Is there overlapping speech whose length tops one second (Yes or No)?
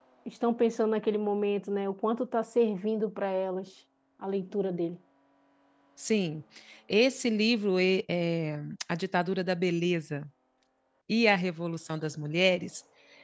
No